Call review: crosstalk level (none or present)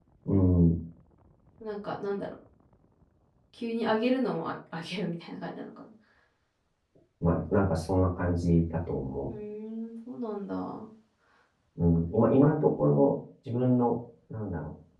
none